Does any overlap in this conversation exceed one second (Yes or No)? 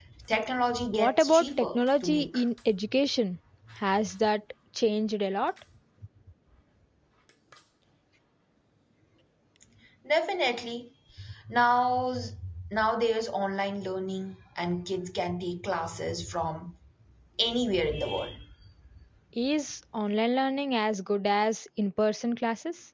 Yes